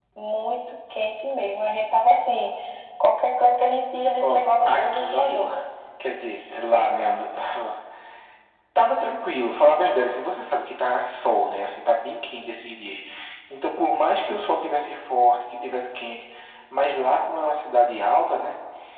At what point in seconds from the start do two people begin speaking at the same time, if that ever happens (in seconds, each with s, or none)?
4.2 s